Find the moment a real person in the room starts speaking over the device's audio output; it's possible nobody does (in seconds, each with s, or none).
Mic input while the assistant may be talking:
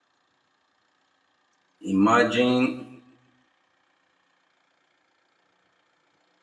1.9 s